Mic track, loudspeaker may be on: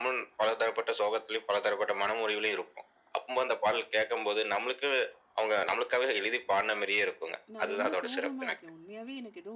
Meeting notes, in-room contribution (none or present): present